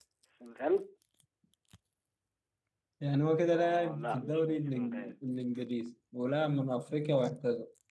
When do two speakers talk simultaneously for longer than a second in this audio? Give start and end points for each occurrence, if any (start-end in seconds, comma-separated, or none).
3.5-5.1